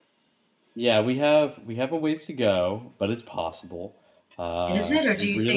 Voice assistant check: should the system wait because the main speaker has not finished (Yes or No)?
No